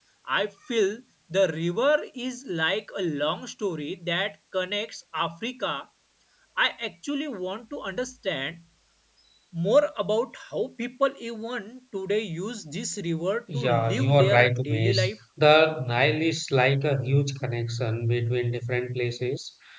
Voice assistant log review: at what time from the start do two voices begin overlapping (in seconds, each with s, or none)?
13.5 s